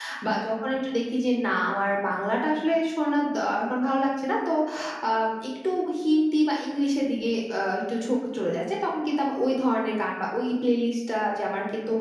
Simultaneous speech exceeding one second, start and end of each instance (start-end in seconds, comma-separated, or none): none